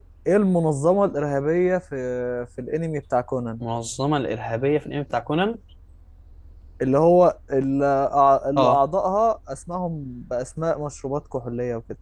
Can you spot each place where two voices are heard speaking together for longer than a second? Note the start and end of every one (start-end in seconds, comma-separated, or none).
none